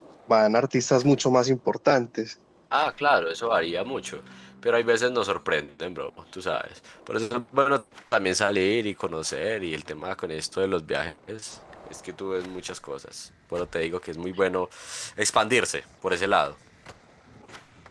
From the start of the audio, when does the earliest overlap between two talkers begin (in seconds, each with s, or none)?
none